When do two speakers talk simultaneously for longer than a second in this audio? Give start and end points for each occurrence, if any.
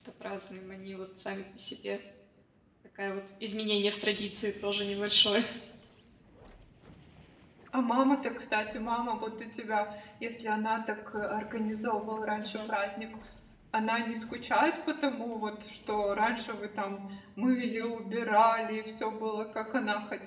none

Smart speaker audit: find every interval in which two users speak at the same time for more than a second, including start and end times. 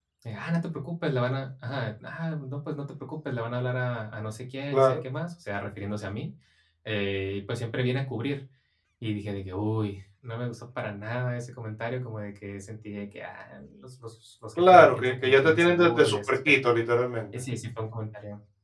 14.6-16.5

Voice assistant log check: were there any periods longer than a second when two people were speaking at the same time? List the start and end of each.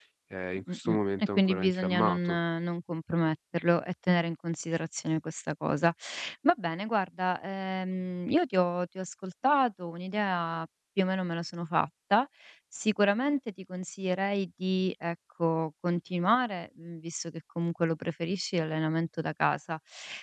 0.5-2.4

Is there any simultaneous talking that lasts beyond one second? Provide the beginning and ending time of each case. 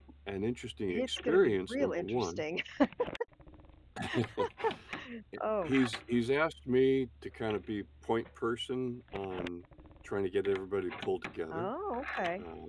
0.9-2.4

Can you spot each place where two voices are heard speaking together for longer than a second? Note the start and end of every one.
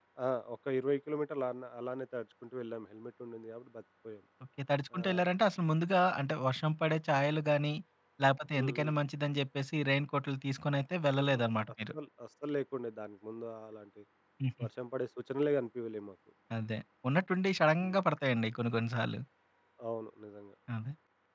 none

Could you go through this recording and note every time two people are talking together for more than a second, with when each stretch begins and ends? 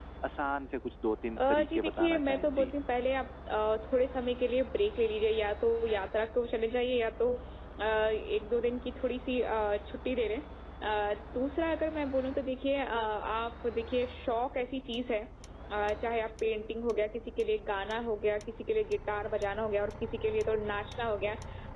1.4-2.7

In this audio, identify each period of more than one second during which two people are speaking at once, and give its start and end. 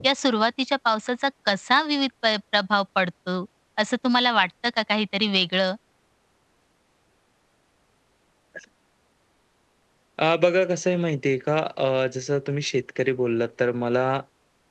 none

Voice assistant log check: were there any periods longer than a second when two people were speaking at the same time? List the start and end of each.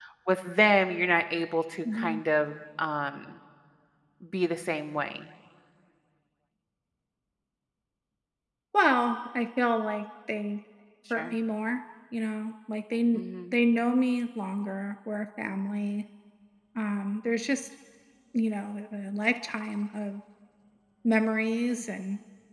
none

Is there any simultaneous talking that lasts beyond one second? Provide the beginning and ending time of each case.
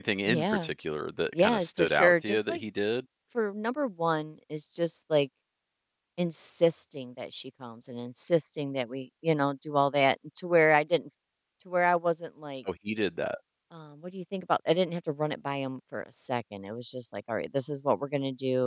1.3-2.6

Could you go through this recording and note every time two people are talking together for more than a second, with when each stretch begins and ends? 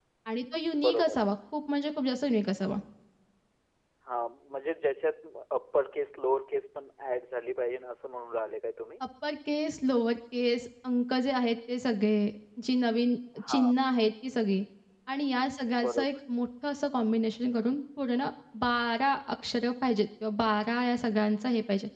none

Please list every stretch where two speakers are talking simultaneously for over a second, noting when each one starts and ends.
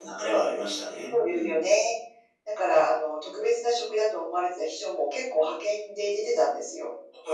none

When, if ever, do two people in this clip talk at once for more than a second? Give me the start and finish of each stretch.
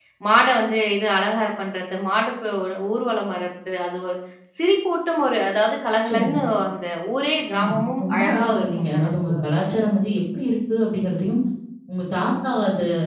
7.6-9.4

